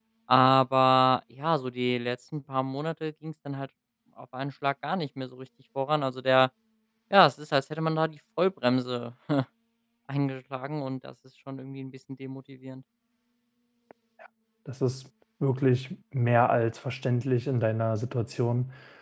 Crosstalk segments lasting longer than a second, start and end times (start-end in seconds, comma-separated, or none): none